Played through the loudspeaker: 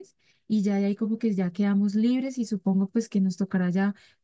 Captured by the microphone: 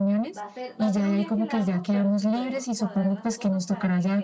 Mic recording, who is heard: both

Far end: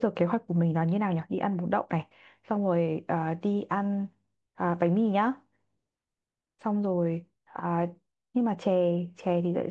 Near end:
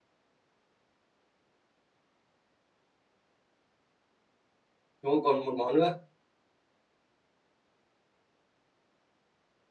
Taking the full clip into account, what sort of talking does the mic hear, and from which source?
user only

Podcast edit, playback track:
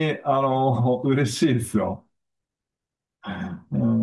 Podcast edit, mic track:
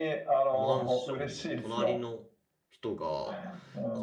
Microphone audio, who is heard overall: both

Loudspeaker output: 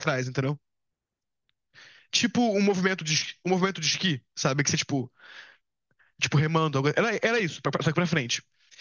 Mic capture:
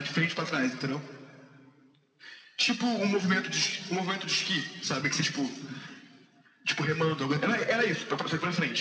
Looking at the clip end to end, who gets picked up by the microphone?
echo only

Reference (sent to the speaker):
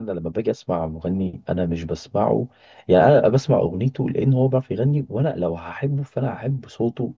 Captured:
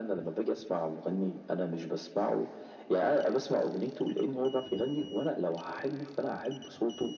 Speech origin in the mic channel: echo only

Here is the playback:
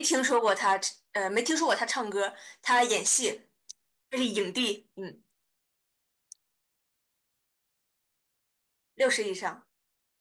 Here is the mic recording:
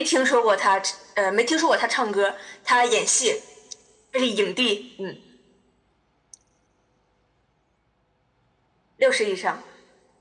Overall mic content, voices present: echo only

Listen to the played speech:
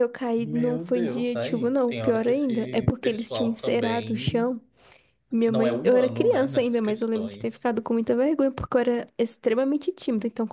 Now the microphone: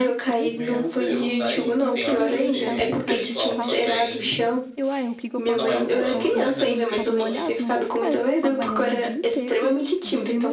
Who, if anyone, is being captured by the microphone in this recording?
both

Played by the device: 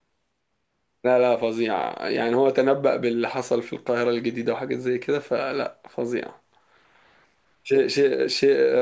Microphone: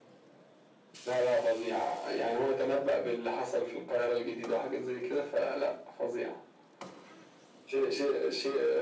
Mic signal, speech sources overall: echo only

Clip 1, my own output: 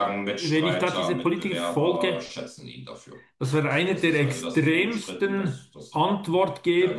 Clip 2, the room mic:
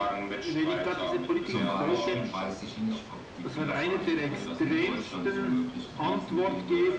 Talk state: both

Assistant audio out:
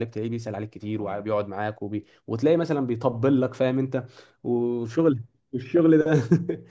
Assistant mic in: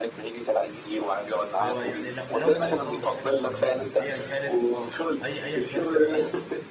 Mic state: both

